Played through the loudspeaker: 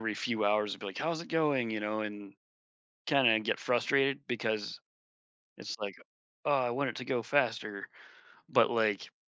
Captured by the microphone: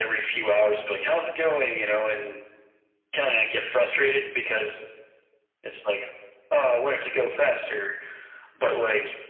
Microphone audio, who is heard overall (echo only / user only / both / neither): echo only